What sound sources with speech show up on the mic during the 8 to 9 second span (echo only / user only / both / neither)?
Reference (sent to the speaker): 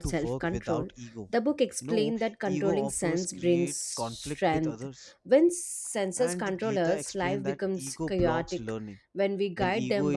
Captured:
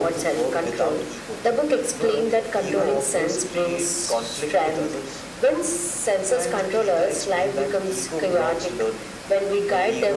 echo only